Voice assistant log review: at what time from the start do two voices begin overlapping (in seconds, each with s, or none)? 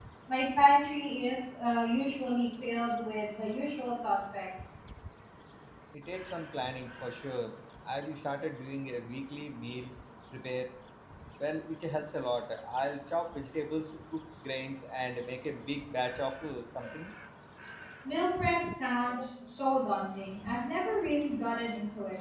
none